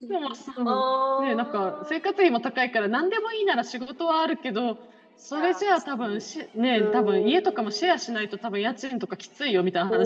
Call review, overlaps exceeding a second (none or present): present